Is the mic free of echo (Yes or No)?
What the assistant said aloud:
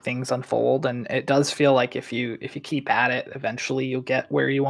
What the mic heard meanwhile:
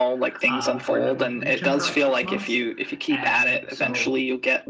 No